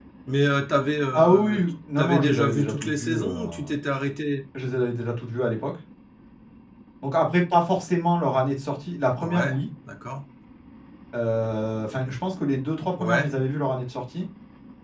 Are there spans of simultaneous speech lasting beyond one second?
Yes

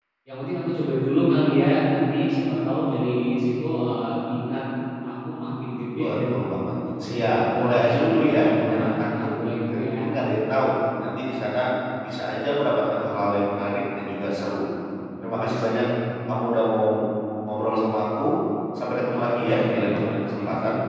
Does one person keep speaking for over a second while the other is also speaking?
Yes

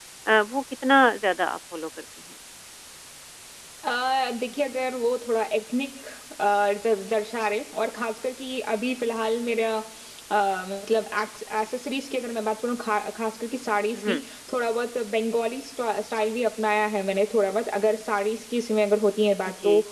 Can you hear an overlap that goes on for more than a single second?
No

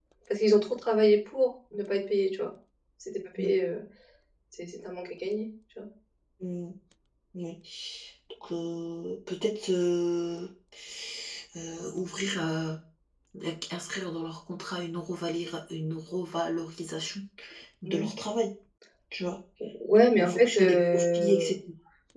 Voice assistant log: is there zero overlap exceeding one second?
No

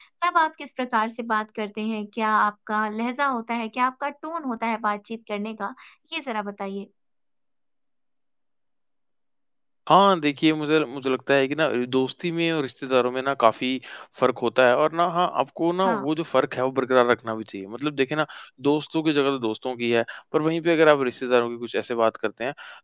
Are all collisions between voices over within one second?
Yes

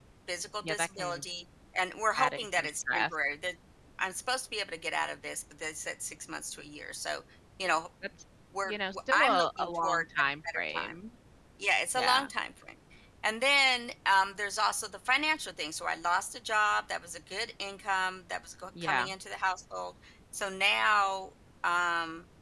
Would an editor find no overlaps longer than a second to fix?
No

